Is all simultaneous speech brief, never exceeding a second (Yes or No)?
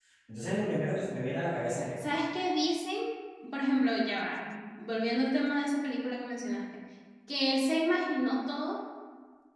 Yes